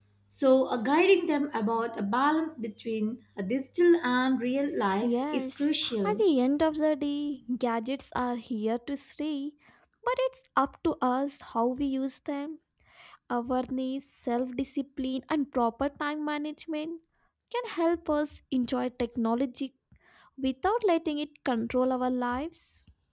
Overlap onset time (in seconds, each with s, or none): 5.0 s